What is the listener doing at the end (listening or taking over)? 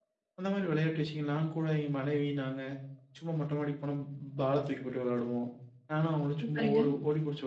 listening